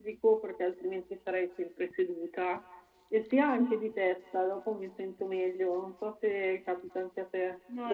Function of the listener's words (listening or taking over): taking over